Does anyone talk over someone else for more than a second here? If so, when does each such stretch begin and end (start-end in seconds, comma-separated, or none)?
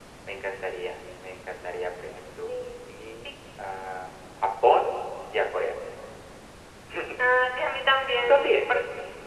none